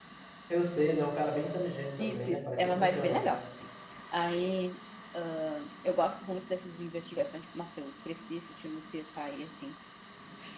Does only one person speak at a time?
No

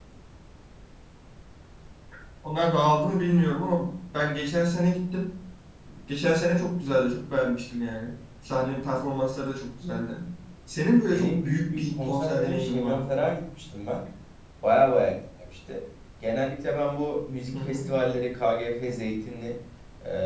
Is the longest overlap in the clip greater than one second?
Yes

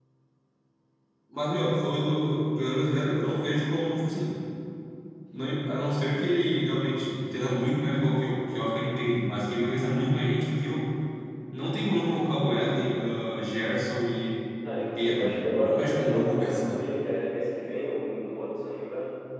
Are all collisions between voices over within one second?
No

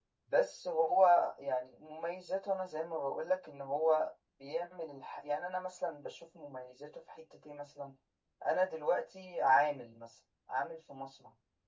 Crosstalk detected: No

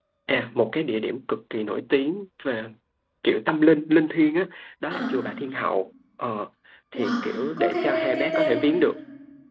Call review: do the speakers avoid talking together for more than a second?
No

